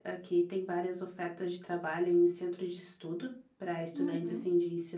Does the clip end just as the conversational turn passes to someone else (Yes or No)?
No